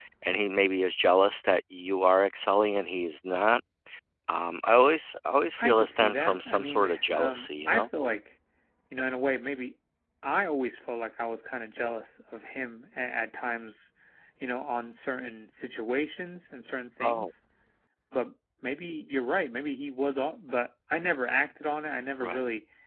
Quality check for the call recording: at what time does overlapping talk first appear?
5.6 s

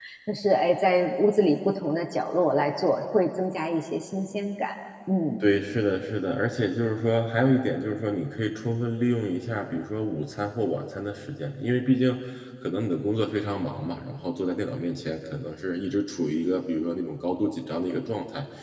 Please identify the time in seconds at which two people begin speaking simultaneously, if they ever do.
none

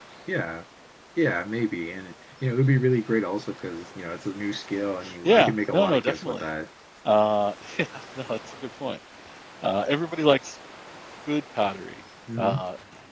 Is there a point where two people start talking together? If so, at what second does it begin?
5.2 s

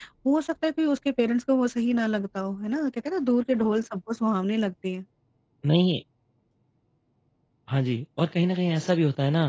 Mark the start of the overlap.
none

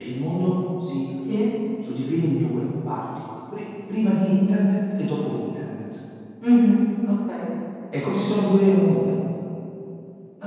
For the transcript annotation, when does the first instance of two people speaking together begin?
none

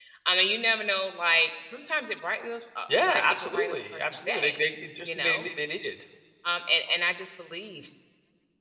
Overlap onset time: 3.1 s

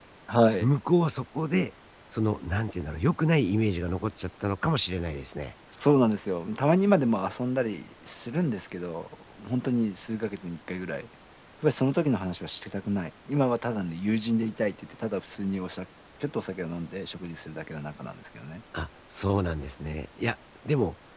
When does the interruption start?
none

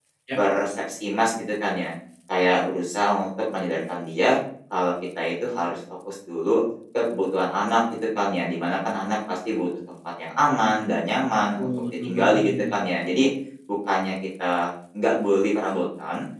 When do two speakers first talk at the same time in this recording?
11.6 s

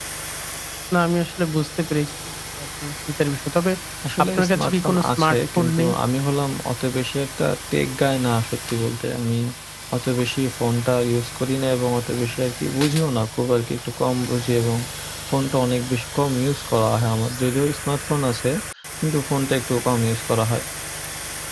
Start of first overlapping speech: 4.2 s

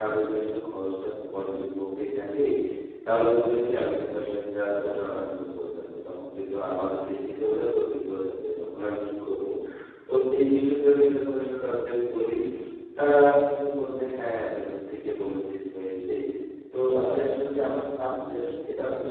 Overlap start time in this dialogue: none

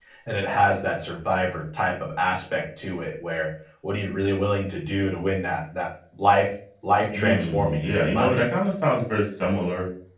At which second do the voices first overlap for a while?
7.1 s

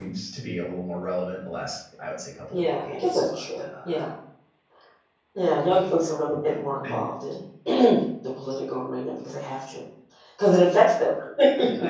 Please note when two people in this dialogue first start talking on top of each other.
2.5 s

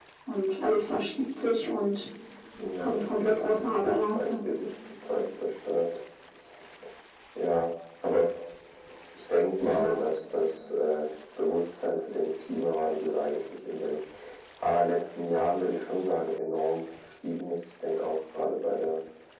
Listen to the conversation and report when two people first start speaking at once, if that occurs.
2.8 s

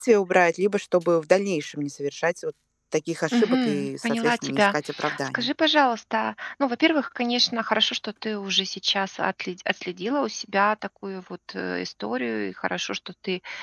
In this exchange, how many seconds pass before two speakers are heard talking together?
3.3 s

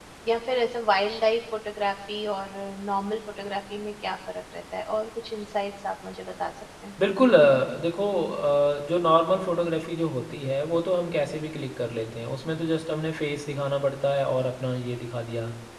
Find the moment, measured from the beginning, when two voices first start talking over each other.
none

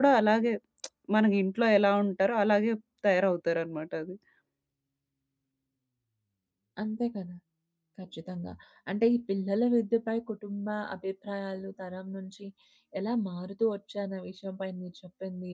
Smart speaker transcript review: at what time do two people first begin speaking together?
none

